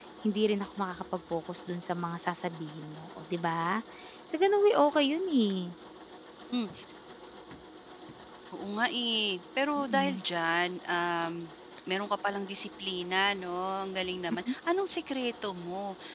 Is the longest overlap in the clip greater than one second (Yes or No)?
No